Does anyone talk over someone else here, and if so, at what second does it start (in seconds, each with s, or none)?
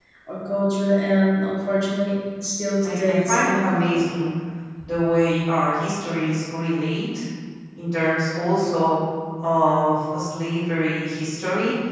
2.8 s